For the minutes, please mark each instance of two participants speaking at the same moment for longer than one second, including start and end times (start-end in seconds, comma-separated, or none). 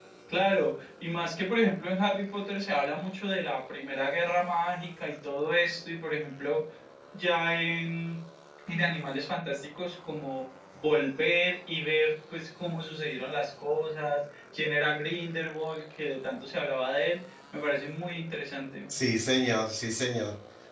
none